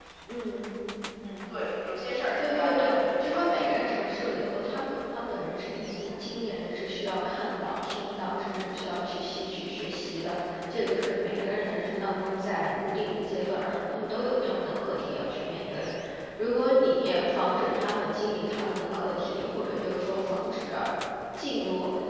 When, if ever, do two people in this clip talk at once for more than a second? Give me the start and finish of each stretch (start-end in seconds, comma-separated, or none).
2.4-3.9